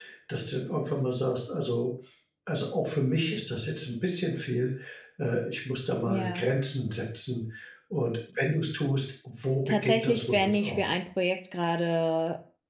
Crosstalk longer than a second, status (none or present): present